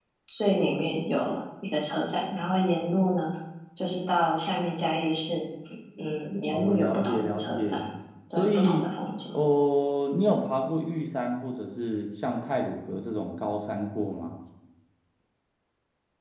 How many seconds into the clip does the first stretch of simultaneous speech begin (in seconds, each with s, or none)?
6.5 s